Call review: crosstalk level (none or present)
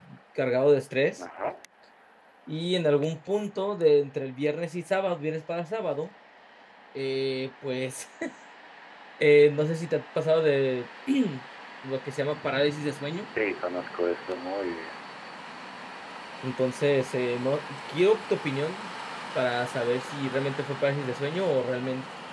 none